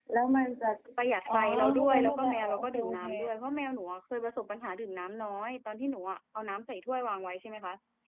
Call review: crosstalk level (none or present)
present